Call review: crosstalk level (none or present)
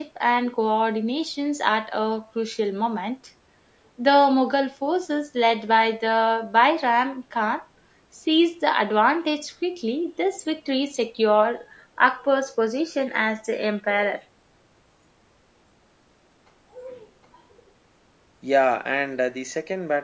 none